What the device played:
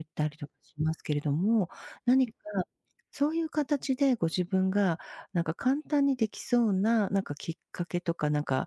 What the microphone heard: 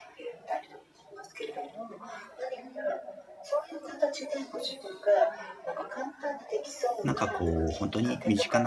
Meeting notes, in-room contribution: present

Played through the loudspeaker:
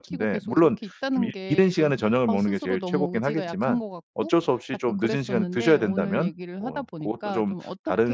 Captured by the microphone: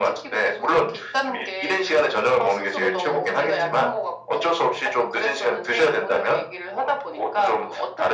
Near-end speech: present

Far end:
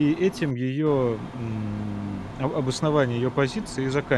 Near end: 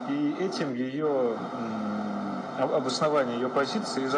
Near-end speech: none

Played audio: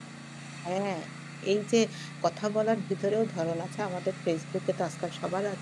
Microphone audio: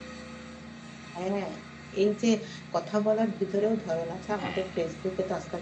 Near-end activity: present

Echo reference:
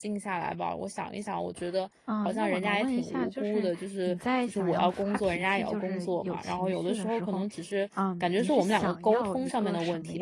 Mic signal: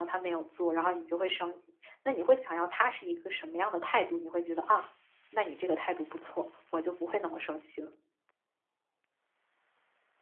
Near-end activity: present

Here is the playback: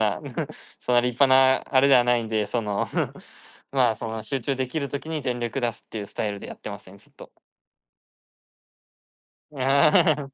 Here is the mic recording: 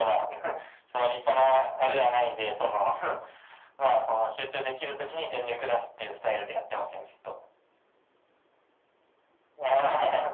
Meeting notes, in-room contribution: none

